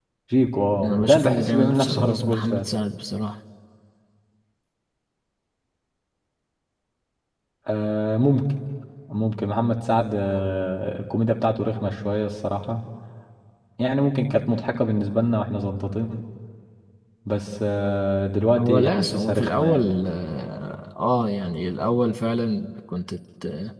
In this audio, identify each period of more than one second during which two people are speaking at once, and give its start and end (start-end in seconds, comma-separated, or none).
0.8-2.7, 18.6-20.0